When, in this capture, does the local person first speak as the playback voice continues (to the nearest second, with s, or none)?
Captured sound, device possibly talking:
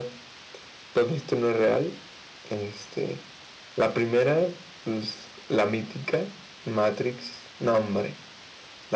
none